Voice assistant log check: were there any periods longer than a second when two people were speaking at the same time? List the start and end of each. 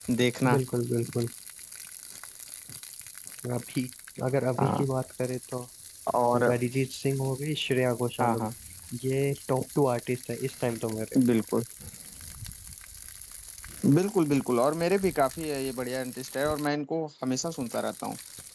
none

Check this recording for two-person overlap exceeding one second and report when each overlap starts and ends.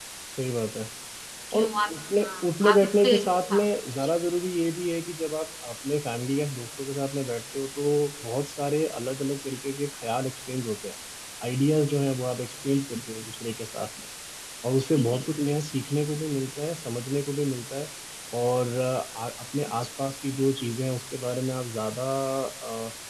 1.6-3.2

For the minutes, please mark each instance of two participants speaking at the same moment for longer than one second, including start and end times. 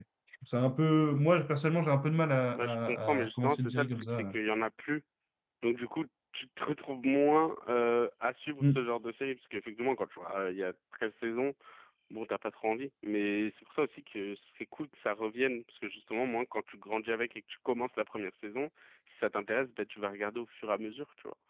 2.5-4.3

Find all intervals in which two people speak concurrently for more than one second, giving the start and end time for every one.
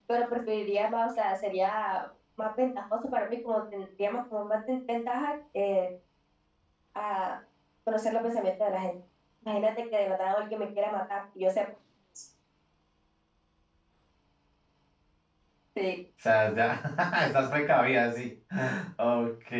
none

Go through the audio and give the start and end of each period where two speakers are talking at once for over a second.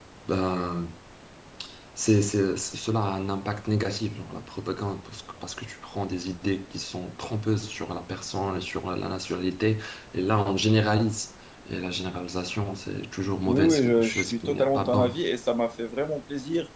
13.5-15.2

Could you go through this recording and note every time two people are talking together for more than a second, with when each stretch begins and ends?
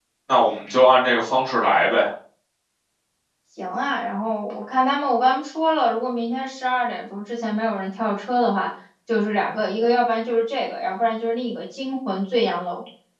none

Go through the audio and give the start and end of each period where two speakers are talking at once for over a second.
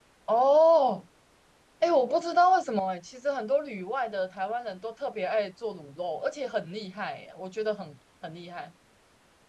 none

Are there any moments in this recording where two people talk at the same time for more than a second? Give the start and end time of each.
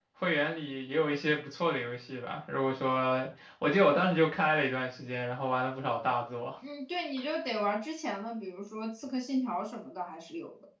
none

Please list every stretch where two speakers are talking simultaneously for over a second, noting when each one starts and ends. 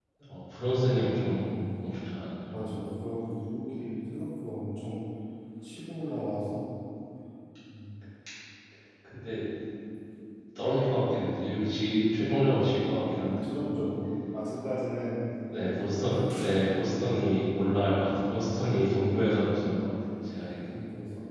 none

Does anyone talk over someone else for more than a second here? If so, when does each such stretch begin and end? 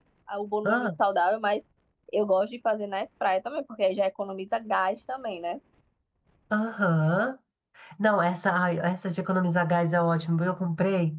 none

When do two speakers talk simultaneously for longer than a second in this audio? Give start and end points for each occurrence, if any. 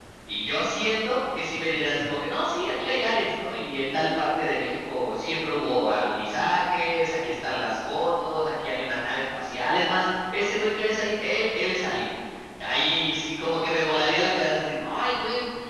none

